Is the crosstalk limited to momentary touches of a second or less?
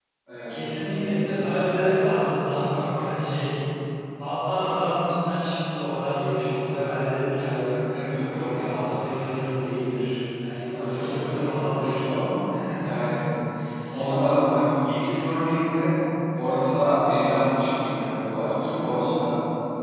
No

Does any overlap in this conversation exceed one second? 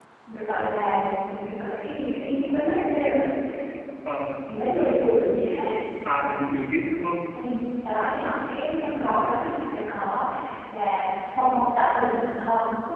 No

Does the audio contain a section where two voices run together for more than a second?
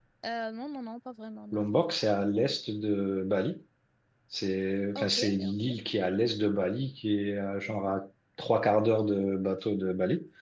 No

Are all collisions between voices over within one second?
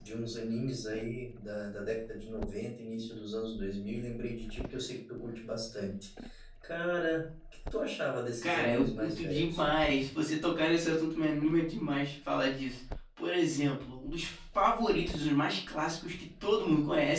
No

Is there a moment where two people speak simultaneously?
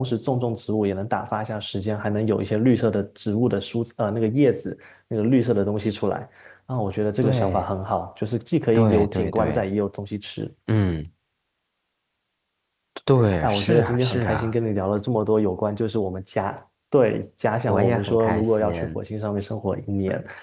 Yes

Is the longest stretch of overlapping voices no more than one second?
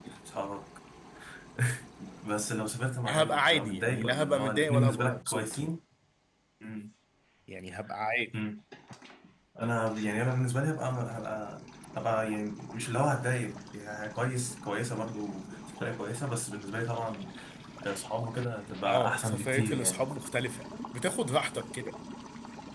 No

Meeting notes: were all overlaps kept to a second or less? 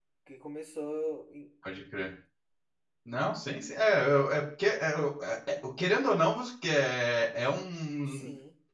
Yes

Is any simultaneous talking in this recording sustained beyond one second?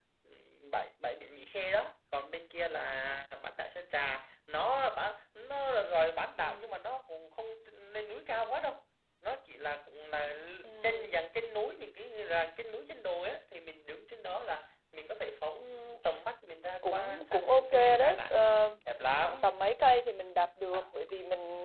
Yes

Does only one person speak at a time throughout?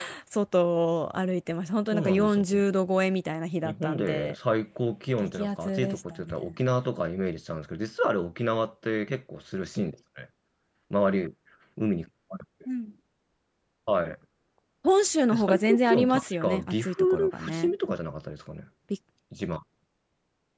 No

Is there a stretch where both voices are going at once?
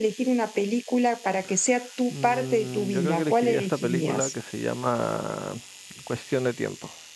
Yes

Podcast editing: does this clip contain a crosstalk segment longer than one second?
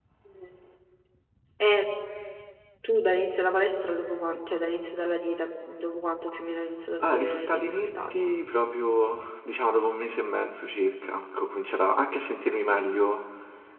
Yes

